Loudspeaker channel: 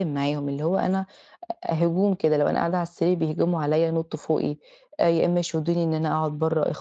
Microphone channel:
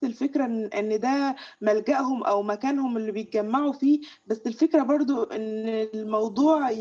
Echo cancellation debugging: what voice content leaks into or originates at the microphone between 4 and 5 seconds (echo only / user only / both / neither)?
user only